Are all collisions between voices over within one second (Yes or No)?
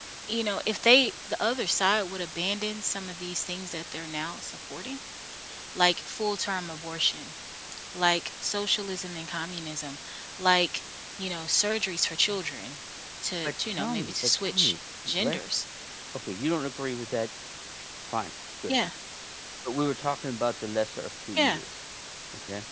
No